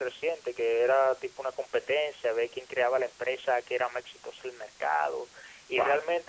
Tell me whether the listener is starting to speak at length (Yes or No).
No